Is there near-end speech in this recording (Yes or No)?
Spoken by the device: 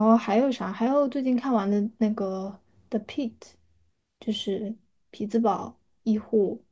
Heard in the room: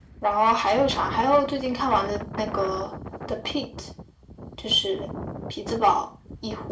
No